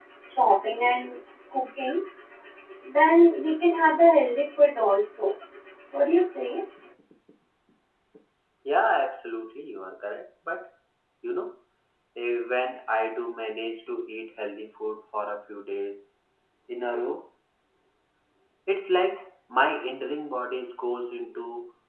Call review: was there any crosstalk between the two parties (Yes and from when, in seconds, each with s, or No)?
No